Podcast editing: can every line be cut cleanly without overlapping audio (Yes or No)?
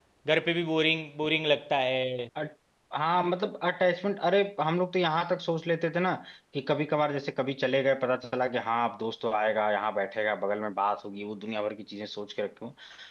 Yes